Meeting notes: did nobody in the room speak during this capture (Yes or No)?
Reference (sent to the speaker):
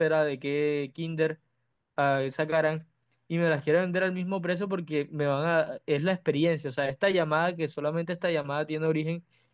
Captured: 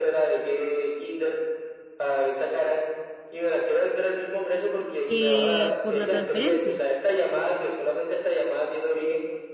No